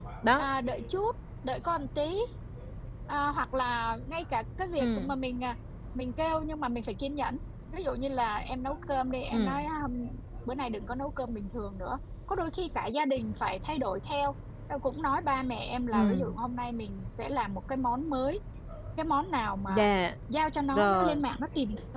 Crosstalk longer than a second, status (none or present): none